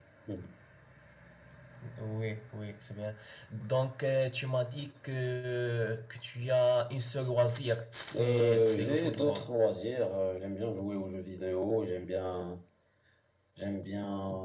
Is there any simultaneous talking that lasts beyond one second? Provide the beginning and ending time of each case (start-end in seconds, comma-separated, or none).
8.1-9.4